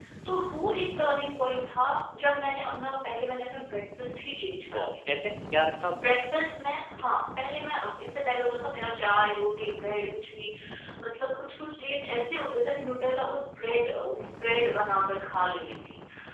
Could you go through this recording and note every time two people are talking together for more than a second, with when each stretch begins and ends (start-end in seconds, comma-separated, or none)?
none